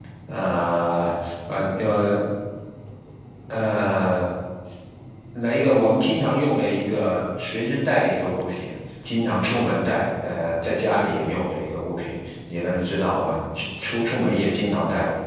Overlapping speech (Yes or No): No